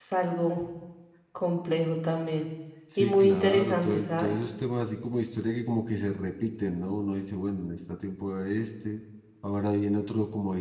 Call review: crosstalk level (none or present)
present